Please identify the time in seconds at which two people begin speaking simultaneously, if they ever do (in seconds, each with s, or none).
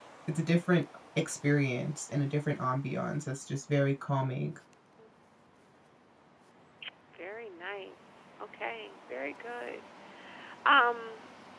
none